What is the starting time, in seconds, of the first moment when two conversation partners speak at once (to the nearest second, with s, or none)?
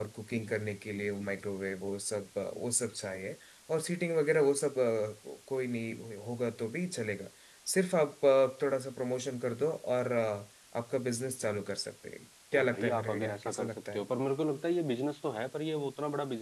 13 s